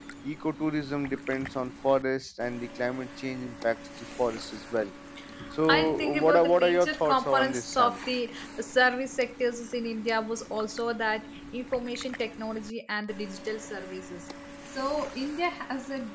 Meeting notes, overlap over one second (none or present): present